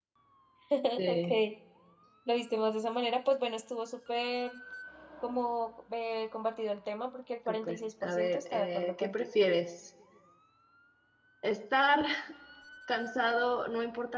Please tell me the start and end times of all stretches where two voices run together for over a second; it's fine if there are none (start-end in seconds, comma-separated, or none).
7.5-9.2